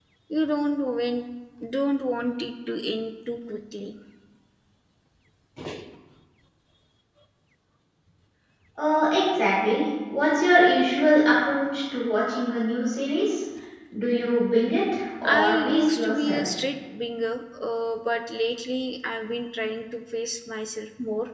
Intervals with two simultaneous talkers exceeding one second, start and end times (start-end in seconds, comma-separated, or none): 15.2-16.5